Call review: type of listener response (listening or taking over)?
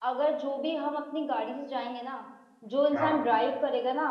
listening